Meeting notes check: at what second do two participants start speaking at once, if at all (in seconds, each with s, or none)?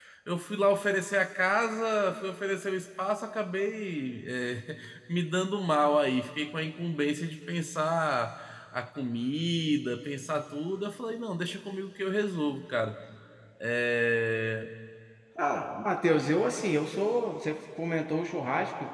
none